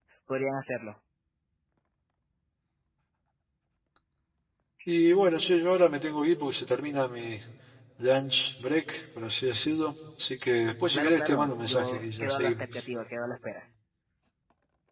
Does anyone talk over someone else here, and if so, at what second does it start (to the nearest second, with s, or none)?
11 s